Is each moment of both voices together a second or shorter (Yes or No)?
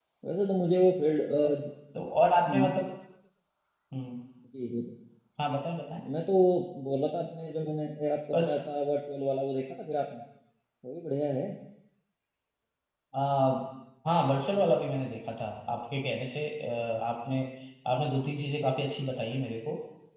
Yes